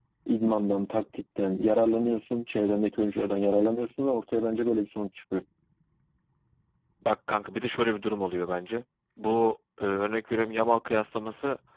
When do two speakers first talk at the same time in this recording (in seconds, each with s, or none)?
none